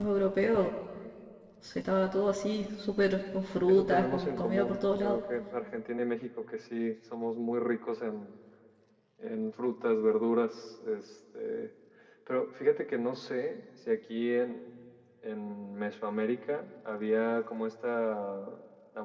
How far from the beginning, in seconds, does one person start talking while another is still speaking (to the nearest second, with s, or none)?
4 s